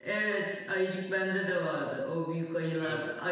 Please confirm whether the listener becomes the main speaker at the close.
No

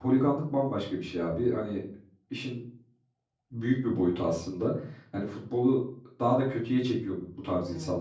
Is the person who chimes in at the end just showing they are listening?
Yes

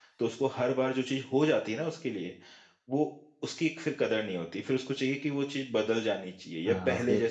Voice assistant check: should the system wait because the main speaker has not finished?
No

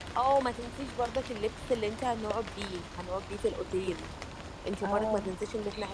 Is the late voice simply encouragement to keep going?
Yes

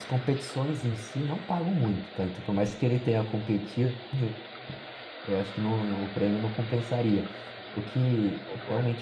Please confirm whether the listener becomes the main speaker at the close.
No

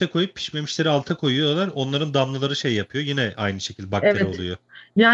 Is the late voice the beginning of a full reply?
Yes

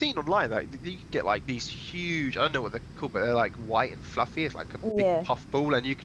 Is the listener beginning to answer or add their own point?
No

